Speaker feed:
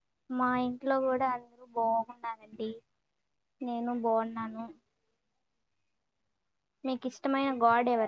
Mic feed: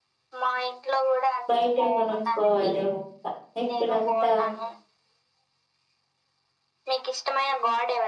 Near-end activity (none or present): present